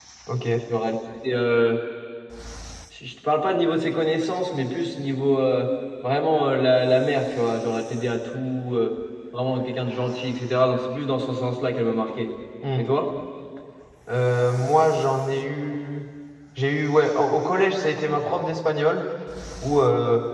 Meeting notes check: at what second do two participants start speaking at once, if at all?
none

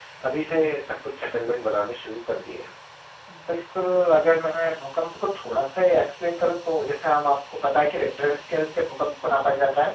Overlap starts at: none

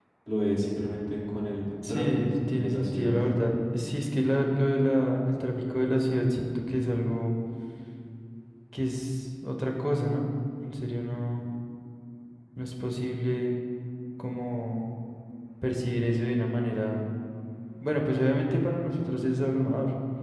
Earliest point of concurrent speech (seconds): 1.8 s

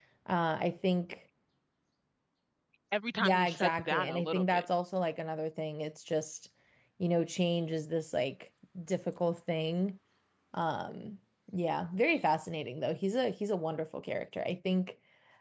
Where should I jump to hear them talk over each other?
3.2 s

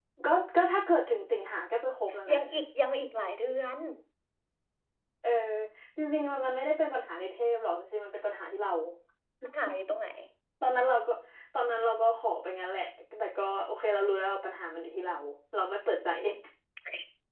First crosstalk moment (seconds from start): none

